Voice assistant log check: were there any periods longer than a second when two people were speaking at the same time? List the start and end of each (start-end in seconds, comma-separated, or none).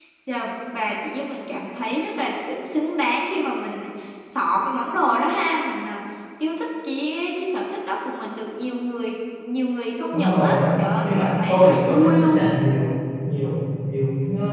10.1-12.5